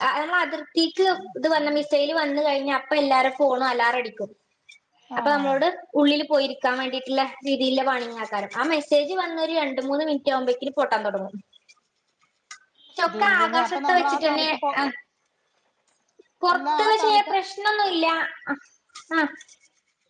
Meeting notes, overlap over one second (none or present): present